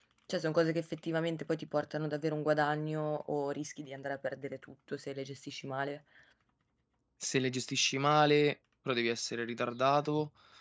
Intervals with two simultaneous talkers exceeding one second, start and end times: none

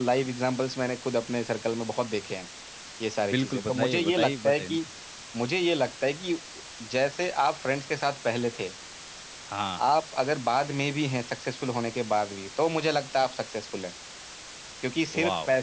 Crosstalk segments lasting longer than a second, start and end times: 3.3-4.8

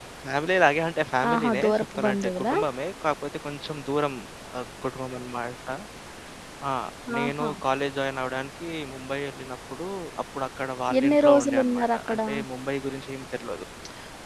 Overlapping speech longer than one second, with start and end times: 1.3-2.5, 11.0-12.2

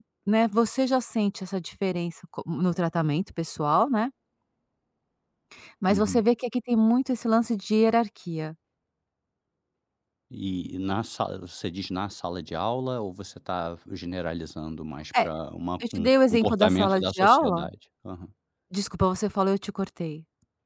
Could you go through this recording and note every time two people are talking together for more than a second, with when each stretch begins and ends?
15.8-17.7

